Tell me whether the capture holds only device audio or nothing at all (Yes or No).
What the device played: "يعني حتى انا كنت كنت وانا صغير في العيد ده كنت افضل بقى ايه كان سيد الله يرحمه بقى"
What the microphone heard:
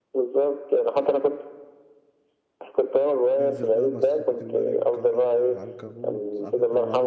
No